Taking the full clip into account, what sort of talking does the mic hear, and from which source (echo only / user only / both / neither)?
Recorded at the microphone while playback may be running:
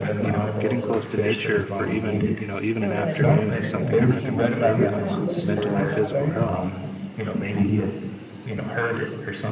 both